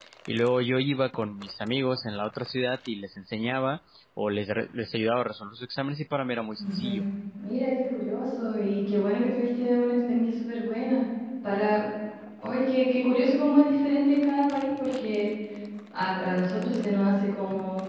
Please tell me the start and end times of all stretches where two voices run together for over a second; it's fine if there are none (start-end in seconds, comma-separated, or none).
none